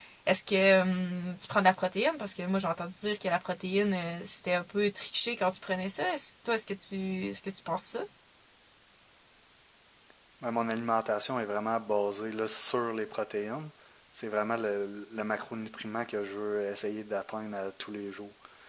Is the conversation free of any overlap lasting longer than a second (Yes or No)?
Yes